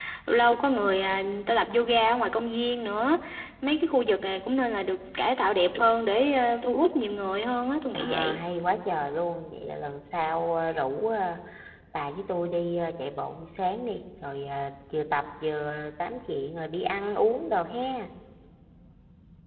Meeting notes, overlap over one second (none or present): none